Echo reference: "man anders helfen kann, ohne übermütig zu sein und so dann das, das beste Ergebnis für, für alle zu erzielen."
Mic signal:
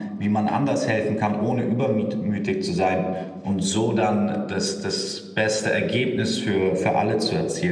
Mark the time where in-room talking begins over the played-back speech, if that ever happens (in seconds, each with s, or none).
none